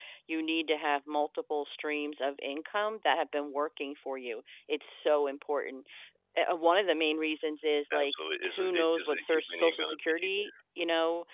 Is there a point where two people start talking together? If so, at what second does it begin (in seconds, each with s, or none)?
7.9 s